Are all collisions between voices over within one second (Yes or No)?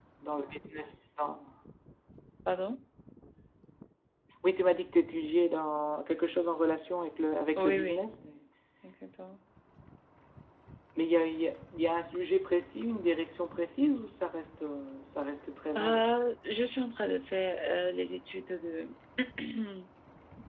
Yes